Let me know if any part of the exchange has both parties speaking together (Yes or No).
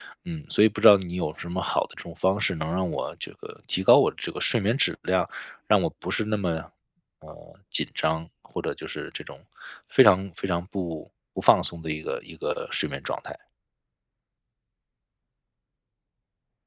No